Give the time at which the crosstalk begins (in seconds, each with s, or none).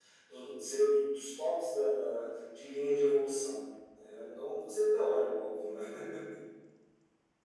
none